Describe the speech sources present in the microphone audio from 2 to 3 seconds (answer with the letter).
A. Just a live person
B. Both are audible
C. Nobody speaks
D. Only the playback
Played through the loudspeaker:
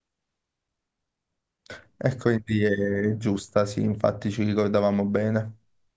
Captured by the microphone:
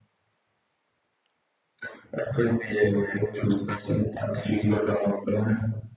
D